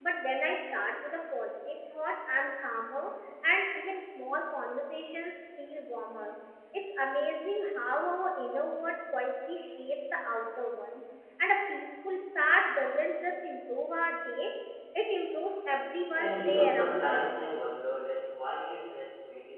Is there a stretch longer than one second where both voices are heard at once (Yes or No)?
Yes